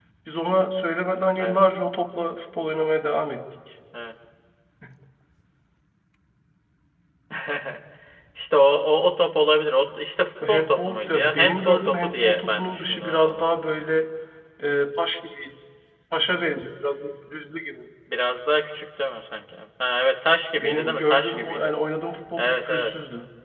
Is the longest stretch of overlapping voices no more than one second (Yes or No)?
No